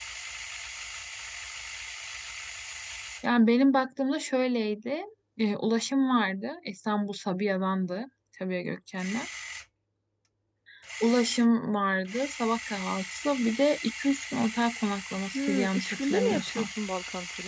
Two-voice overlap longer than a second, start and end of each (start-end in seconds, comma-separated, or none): 15.3-16.6